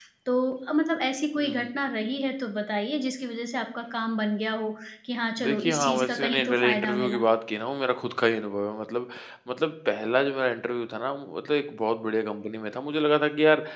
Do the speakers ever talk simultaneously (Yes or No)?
Yes